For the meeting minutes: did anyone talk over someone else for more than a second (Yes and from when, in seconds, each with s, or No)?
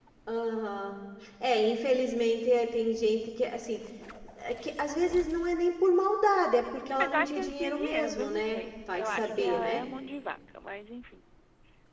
Yes, from 7.0 s